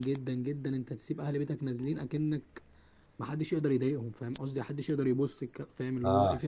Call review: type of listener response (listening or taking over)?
taking over